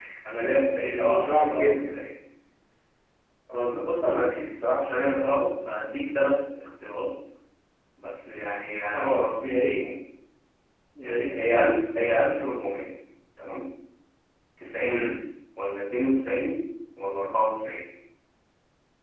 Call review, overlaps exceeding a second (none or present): present